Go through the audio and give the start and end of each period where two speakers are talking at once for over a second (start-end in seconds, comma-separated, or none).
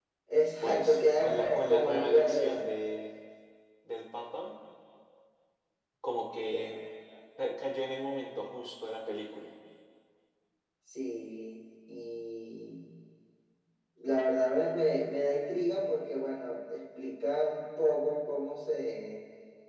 0.6-2.6